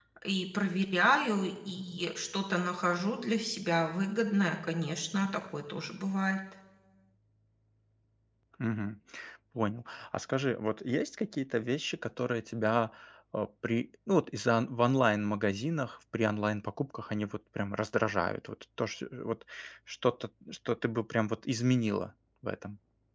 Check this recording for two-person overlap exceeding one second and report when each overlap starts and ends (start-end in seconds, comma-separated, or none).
none